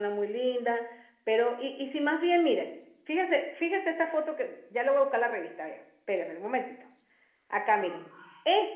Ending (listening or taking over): listening